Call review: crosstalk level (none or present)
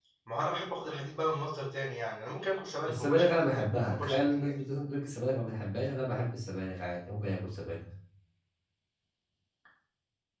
present